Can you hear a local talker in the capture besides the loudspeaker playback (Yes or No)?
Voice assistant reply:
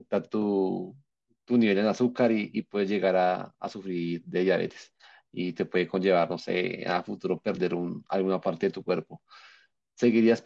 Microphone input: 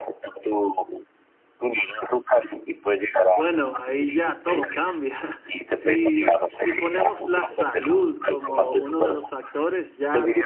Yes